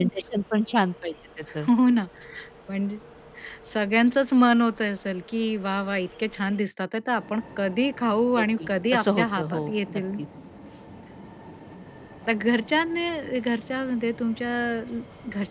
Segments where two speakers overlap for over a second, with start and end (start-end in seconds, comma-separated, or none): 8.4-10.0